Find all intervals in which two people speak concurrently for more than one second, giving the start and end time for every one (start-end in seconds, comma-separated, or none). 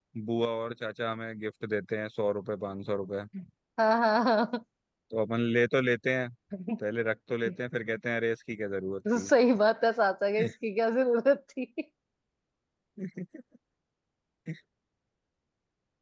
none